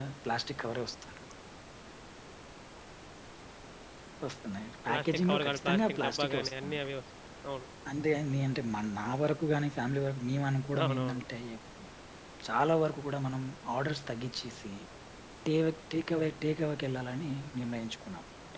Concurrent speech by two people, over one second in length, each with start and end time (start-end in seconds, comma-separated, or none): 4.9-6.8